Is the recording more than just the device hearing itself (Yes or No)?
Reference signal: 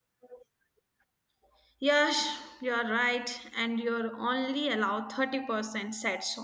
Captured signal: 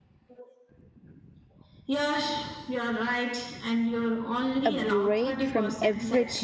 Yes